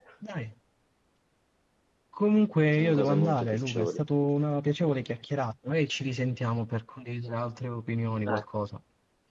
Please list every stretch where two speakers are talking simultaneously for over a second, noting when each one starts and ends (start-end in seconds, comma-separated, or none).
2.8-4.0